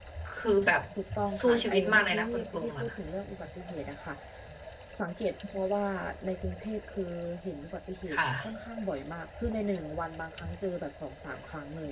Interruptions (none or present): present